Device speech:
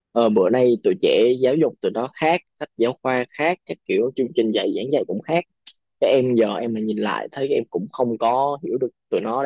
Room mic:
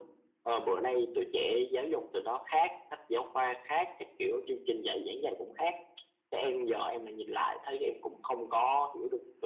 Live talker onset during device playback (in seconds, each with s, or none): none